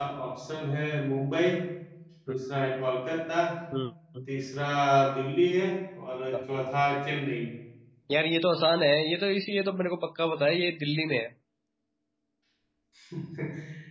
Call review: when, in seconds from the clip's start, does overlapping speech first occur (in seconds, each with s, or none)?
none